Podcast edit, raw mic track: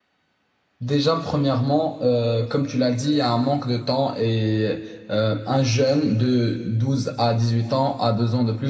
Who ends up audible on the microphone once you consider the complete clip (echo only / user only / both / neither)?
user only